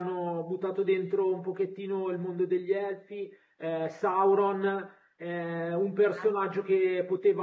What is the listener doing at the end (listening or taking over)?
listening